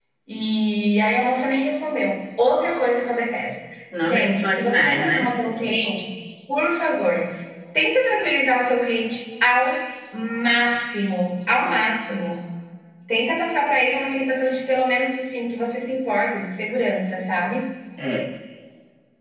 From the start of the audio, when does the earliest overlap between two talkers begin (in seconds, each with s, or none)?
4.0 s